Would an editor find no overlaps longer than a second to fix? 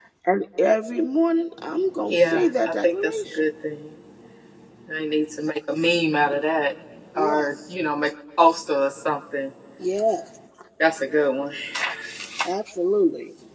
No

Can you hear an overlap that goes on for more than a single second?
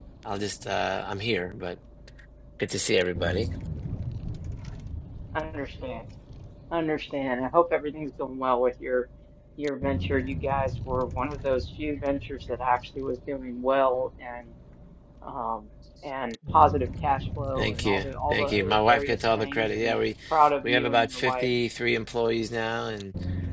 Yes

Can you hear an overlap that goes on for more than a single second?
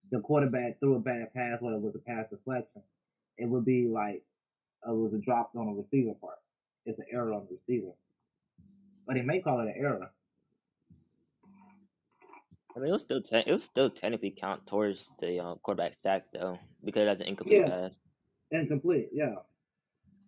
No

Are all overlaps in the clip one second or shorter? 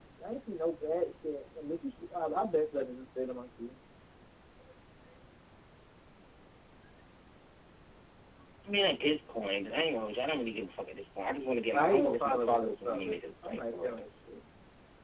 No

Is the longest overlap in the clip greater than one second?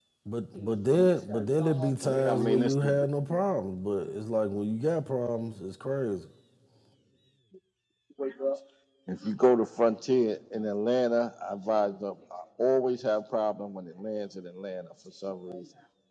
Yes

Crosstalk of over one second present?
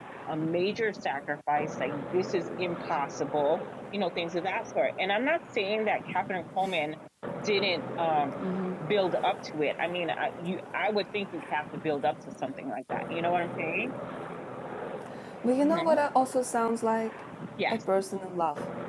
No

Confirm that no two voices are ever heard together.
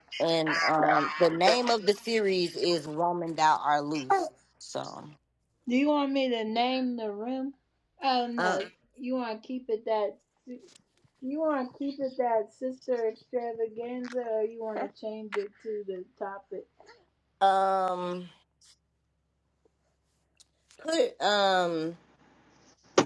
No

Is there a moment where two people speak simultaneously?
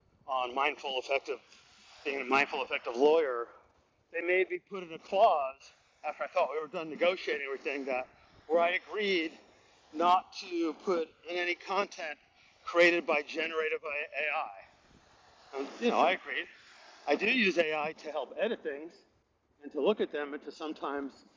No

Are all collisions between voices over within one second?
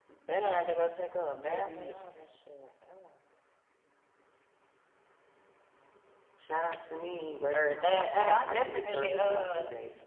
No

